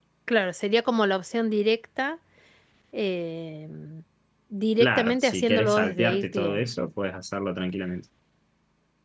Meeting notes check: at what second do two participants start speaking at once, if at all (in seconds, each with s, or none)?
4.8 s